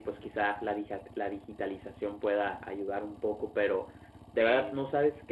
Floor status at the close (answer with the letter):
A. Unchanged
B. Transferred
A